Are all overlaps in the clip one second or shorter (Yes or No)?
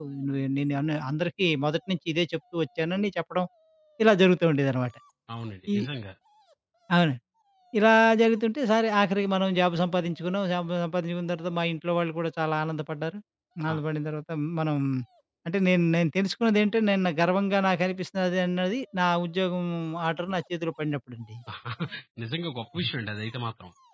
Yes